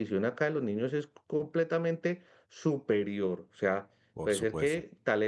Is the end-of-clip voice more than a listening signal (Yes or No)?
No